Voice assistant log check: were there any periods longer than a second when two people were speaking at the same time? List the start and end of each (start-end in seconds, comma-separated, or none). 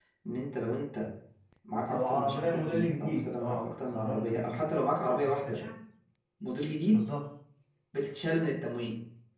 1.9-4.7